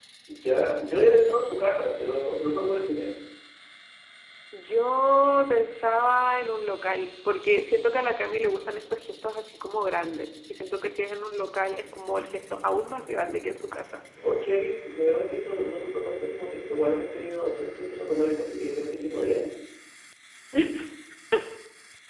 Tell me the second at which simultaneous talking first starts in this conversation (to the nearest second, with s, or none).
none